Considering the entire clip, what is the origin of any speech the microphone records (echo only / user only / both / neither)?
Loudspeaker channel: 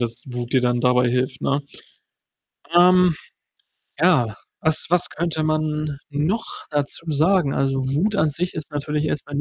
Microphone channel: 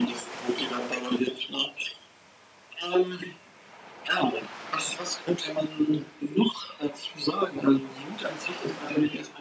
echo only